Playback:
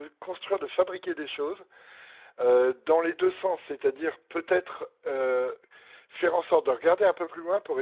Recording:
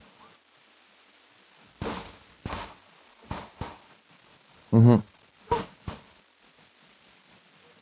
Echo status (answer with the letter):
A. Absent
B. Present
A